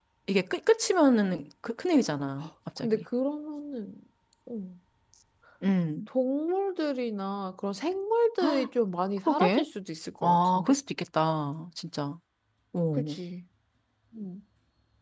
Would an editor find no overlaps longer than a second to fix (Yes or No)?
Yes